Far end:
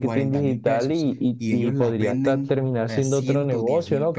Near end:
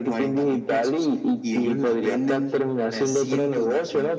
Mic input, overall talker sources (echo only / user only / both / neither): echo only